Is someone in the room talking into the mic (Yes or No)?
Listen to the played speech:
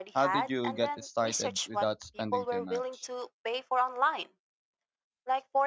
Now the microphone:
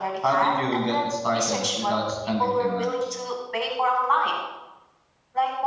No